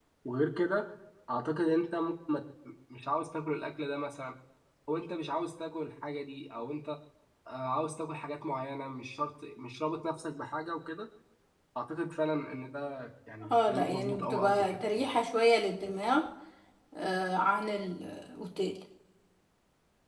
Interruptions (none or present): present